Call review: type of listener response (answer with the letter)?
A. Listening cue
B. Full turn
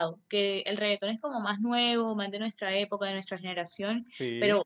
A